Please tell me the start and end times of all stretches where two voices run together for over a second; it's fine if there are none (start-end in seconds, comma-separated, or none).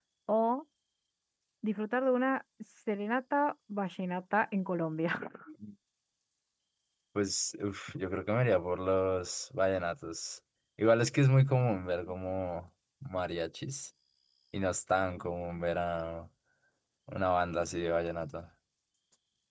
none